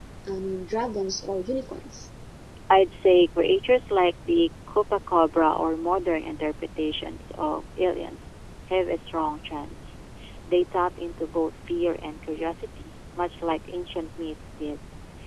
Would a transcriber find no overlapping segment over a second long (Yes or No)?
Yes